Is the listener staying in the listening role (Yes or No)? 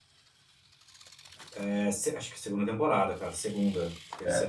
No